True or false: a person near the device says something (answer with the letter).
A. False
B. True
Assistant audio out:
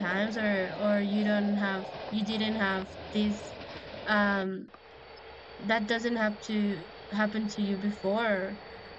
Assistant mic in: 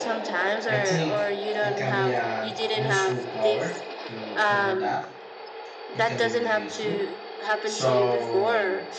B